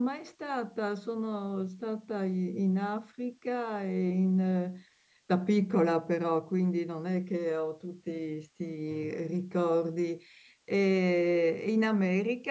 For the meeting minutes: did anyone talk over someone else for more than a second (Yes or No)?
No